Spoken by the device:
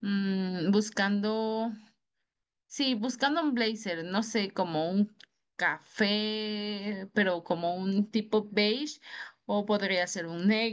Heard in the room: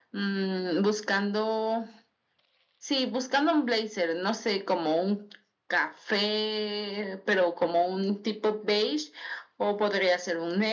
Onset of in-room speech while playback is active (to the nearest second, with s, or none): none